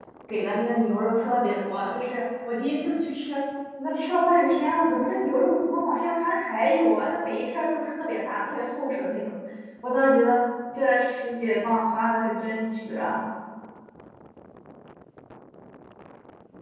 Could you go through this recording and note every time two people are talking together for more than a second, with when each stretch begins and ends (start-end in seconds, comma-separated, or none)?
none